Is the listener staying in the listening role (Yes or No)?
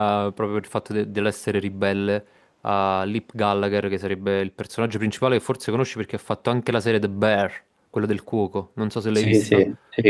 No